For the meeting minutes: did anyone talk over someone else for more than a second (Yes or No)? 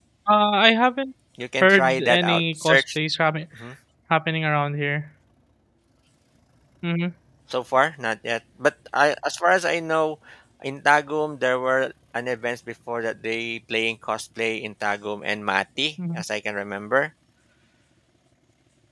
Yes